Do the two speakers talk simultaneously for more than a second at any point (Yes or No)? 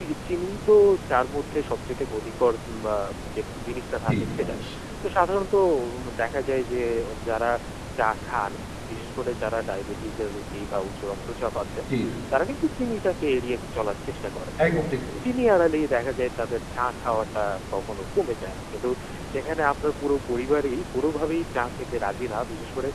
No